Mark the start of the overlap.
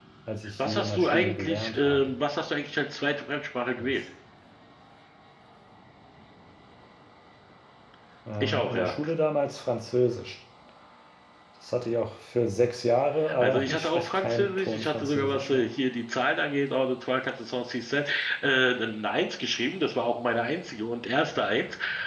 0.6 s

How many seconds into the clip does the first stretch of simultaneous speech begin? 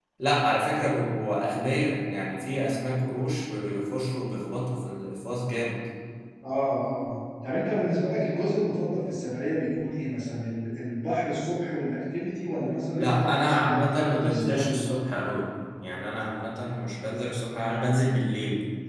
12.9 s

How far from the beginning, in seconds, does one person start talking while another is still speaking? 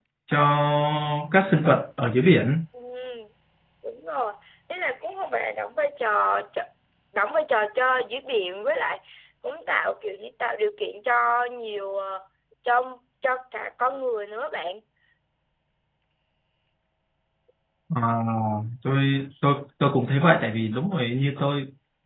none

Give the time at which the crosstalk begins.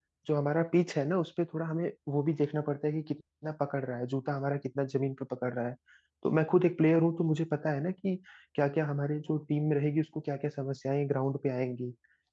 none

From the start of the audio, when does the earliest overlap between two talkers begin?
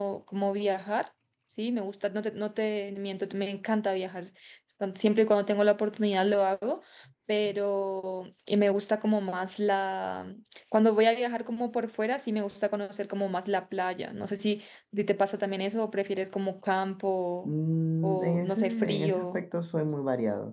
18.0 s

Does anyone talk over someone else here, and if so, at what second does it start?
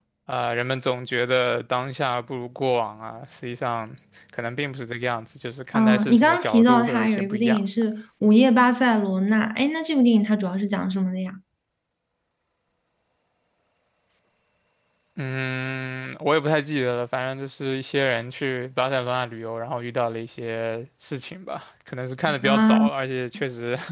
5.7 s

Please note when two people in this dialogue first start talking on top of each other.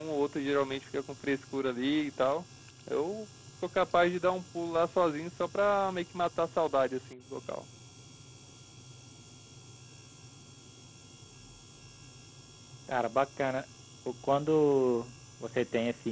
none

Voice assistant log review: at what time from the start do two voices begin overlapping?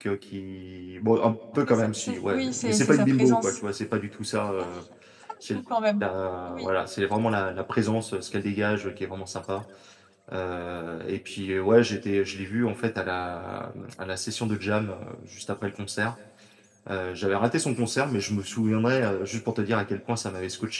1.7 s

